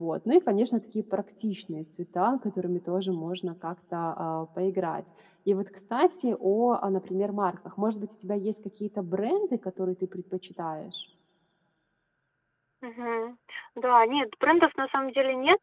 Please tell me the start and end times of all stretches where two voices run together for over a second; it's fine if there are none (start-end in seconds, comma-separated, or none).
none